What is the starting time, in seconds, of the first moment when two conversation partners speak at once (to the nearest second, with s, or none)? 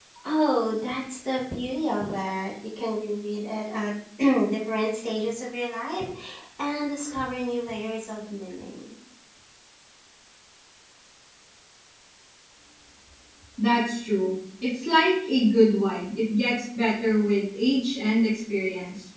none